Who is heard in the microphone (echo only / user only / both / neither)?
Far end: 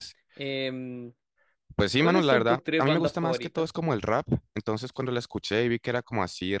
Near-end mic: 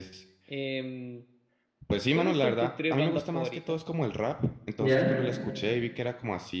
both